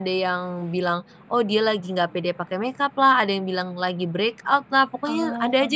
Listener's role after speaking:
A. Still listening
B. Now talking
A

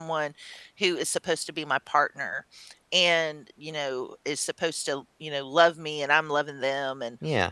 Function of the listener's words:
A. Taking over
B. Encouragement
B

